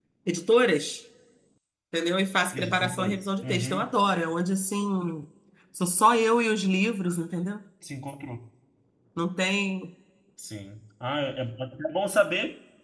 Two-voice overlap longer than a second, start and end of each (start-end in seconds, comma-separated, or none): 2.5-3.9